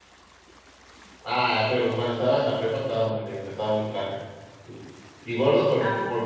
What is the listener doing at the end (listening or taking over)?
listening